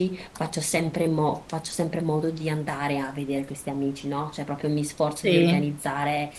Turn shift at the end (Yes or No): No